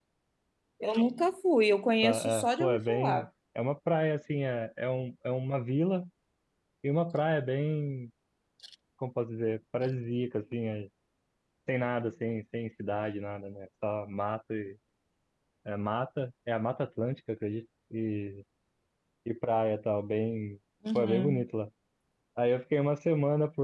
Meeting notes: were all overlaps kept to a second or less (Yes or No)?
No